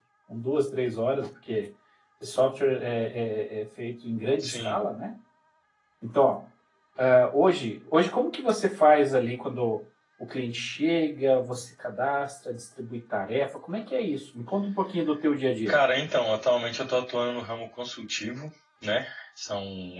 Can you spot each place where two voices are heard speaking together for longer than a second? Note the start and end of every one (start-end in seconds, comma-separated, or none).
none